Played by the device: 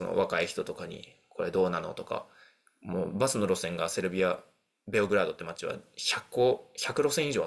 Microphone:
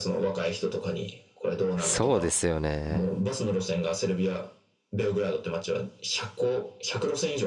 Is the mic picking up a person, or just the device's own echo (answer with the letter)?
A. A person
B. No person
A